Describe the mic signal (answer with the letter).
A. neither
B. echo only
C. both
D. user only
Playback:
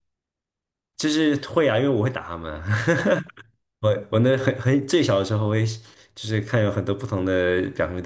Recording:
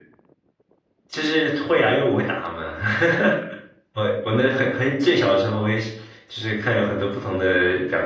B